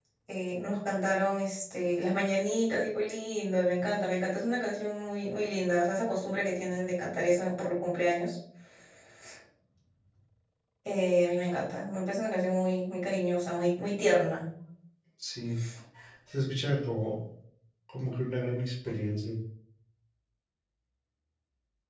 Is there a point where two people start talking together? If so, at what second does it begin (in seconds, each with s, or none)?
none